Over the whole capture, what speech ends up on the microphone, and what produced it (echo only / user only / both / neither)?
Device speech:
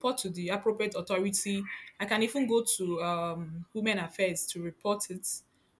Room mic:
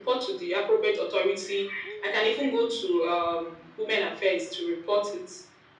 echo only